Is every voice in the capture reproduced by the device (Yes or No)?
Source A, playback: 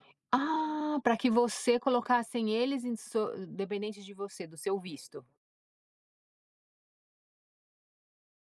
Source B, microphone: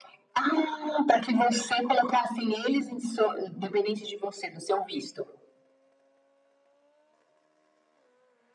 Yes